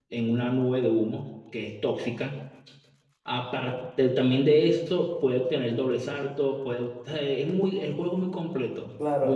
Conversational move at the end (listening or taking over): taking over